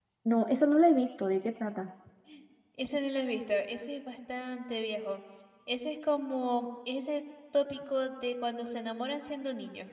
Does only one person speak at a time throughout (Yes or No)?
Yes